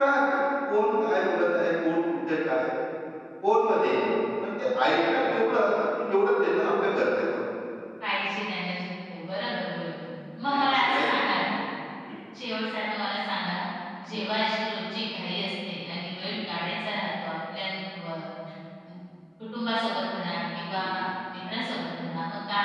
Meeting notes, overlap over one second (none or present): none